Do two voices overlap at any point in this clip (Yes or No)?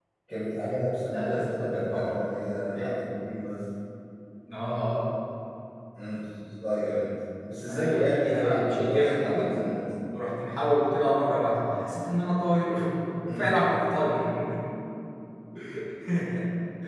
Yes